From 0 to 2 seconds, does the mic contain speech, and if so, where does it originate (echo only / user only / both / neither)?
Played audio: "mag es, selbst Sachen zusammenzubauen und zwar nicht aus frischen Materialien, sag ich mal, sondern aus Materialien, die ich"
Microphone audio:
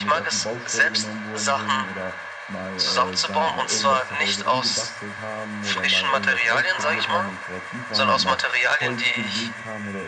both